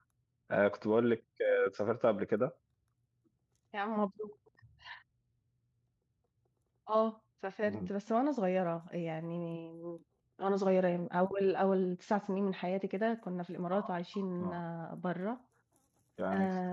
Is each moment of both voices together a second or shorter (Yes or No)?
Yes